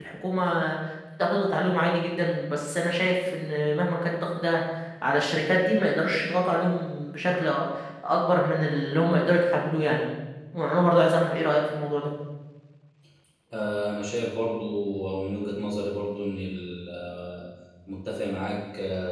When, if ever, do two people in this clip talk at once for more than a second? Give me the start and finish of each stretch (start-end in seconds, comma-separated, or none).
none